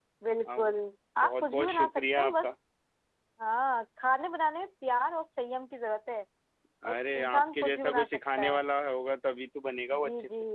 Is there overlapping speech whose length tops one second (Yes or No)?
Yes